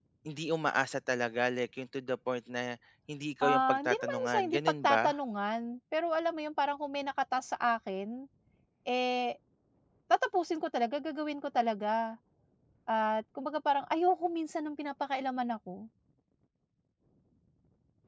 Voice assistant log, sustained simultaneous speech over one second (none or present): present